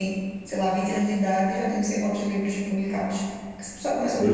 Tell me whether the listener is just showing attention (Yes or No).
No